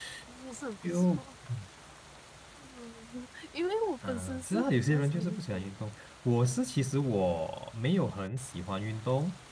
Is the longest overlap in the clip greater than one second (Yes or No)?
Yes